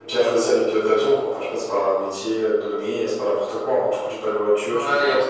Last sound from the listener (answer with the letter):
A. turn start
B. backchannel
A